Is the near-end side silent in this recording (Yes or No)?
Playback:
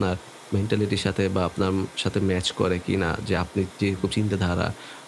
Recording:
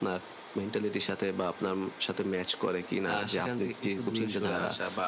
No